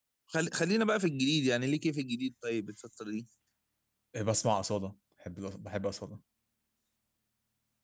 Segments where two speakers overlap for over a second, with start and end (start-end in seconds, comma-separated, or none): none